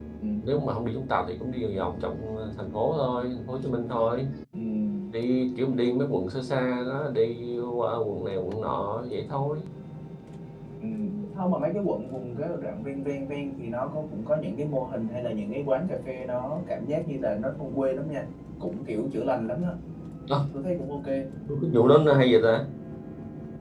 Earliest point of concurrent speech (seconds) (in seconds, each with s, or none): none